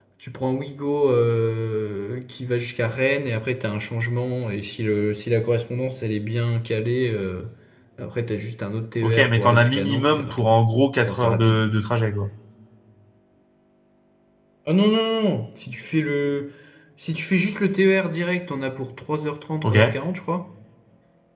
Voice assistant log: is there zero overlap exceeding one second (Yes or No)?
No